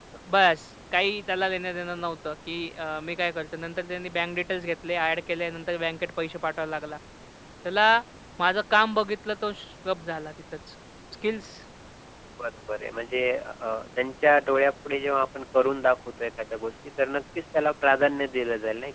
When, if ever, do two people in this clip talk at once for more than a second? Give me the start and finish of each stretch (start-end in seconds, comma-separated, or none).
none